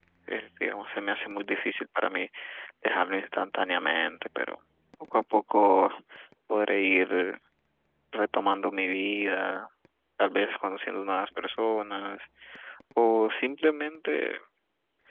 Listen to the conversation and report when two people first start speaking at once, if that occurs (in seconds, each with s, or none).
none